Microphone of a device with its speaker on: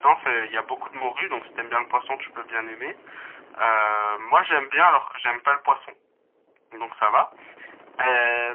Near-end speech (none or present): none